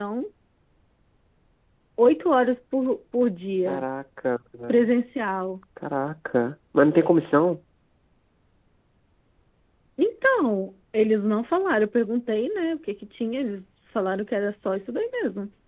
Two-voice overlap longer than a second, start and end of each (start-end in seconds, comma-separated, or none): none